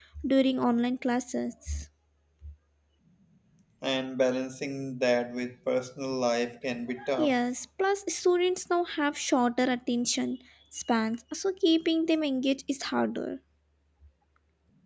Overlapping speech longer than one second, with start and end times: none

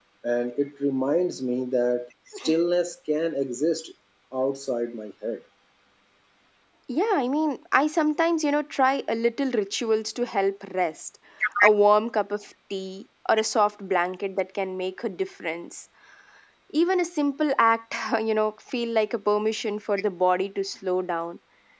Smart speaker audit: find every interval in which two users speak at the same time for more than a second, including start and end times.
none

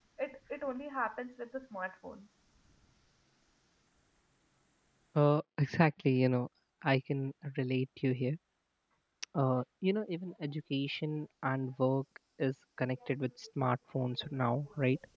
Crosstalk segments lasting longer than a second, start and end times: none

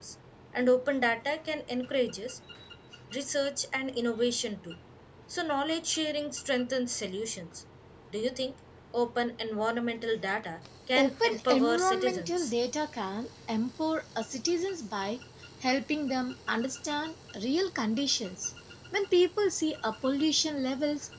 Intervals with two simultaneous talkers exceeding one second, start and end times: 10.9-12.5

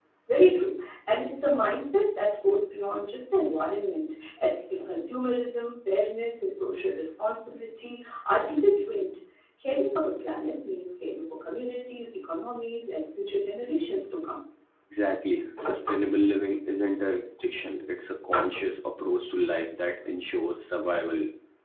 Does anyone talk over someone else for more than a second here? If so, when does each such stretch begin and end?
none

